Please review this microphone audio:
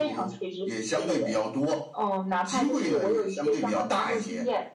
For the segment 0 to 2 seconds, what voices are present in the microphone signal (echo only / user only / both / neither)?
echo only